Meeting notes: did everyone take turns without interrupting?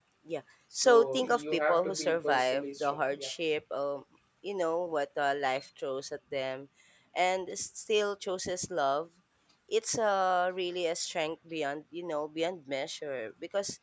No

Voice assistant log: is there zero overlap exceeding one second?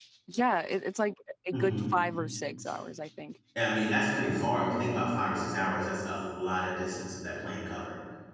Yes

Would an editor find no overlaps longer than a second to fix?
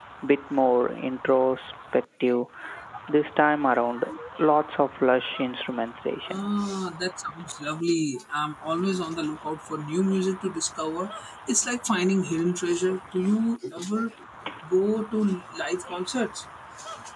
Yes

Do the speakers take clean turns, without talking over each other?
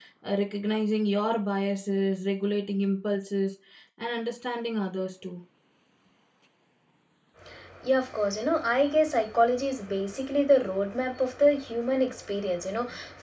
Yes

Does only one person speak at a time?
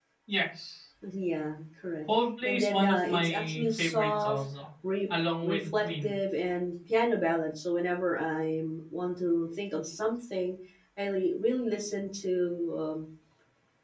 No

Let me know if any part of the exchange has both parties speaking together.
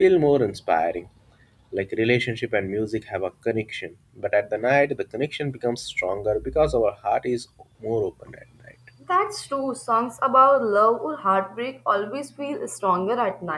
No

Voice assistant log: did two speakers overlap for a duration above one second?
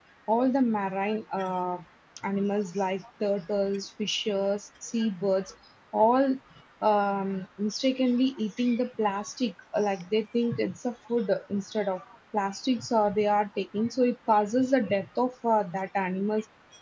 No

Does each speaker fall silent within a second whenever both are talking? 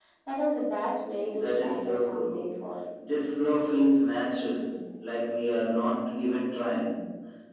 No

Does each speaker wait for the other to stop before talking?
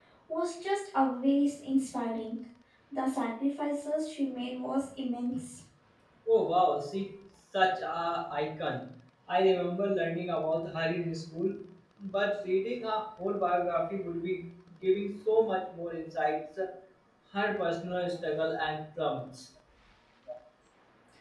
Yes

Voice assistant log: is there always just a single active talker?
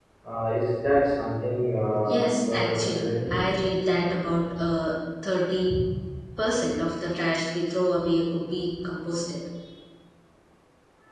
No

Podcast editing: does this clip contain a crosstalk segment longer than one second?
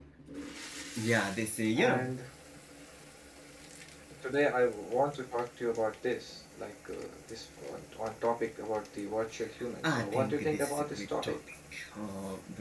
Yes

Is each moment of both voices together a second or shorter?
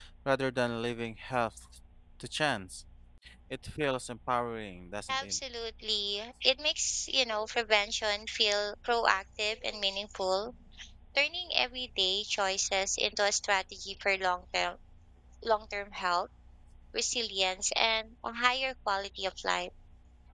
Yes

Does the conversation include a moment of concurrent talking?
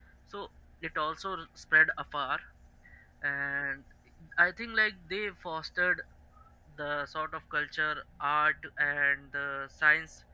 No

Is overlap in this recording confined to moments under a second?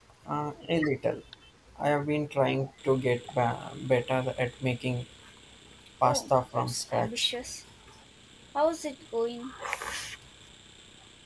No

